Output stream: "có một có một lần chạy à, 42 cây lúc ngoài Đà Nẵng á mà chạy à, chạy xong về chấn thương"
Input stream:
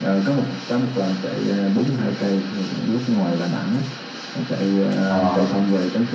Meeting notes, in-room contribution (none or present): present